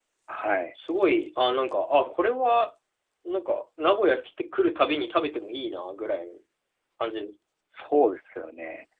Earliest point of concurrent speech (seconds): none

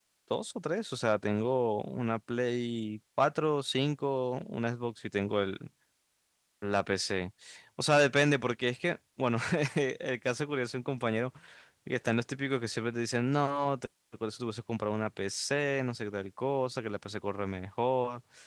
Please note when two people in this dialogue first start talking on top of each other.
none

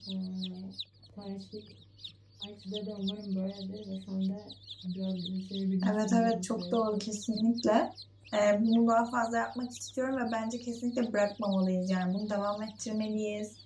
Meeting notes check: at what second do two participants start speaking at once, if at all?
5.8 s

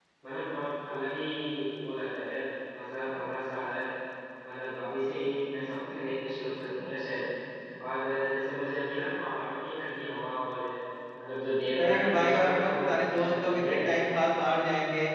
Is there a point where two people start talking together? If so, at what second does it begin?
11.8 s

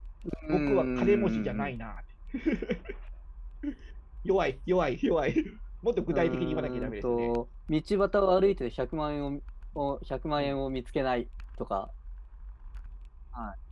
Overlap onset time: 0.5 s

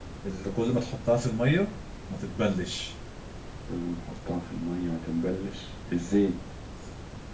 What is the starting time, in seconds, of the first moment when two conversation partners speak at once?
none

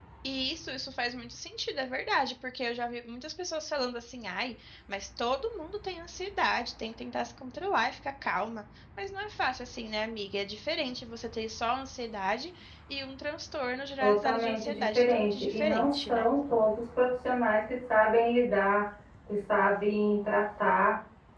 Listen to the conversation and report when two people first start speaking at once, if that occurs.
14.0 s

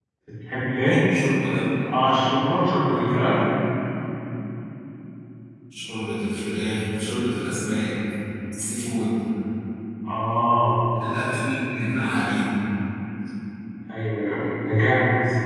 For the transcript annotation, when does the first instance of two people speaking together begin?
none

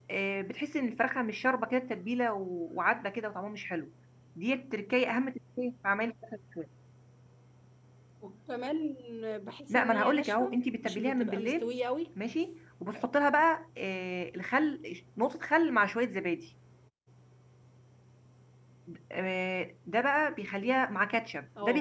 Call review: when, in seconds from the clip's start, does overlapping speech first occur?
9.7 s

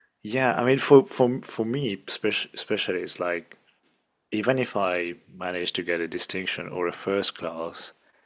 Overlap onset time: none

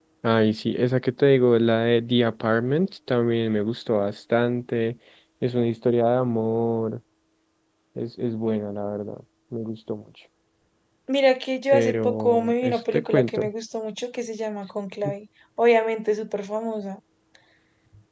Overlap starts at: 11.7 s

